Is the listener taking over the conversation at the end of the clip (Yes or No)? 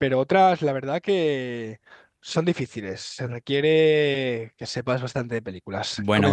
Yes